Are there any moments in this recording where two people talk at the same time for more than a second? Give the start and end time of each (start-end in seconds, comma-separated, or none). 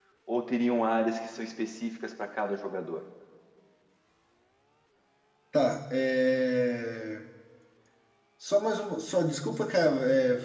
none